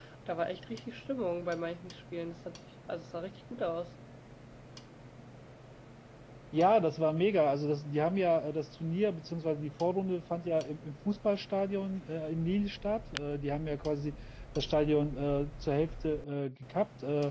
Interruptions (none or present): none